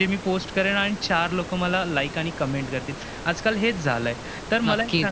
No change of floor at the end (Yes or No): Yes